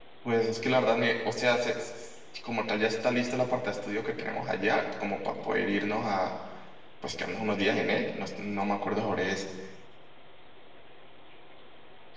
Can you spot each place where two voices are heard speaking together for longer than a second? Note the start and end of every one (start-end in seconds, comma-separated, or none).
none